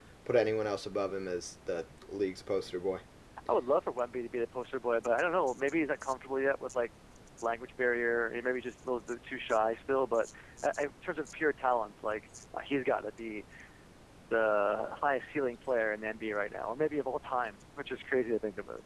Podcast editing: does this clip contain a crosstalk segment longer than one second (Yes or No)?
No